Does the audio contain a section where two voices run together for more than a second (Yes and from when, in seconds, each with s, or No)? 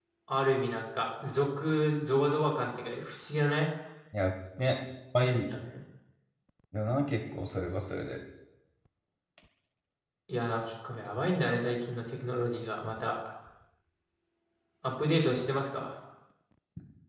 No